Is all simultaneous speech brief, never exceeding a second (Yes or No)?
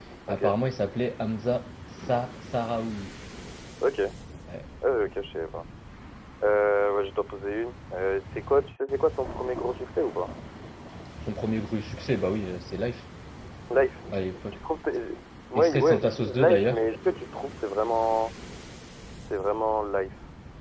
No